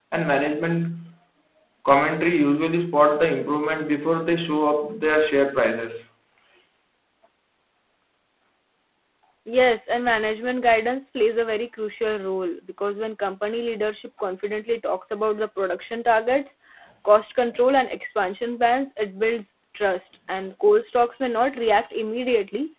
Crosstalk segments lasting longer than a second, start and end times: none

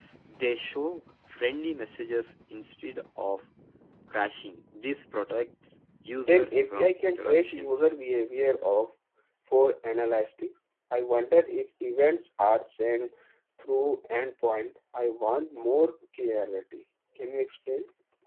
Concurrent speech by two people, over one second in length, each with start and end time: 6.2-7.8

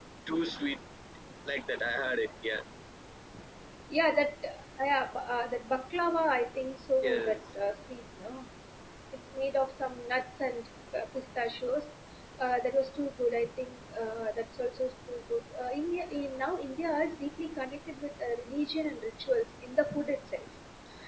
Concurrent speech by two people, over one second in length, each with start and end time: none

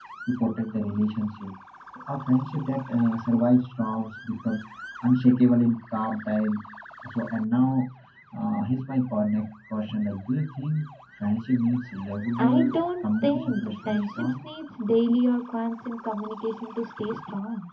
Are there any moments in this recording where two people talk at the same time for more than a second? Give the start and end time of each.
12.4-14.4

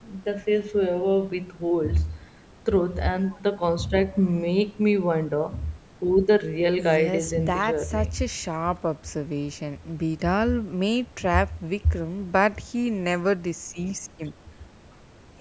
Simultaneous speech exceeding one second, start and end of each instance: 6.8-8.1

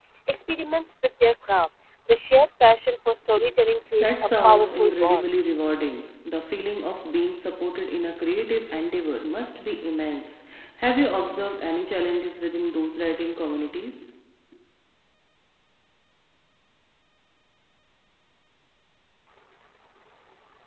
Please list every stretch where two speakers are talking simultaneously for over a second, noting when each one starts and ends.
4.0-5.3

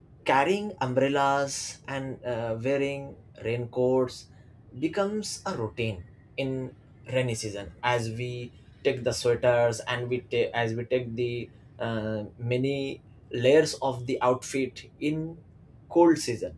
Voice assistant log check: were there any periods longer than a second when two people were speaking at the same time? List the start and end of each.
none

